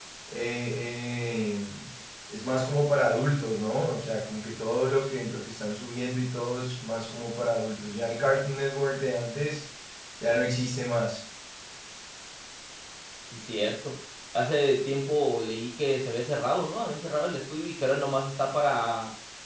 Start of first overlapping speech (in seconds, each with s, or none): none